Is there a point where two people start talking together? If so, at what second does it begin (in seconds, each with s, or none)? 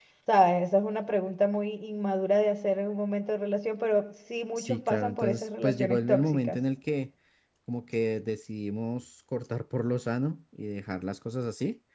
4.6 s